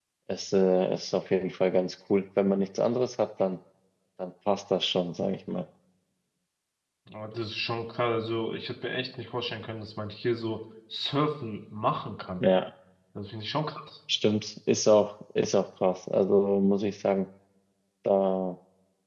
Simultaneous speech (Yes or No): No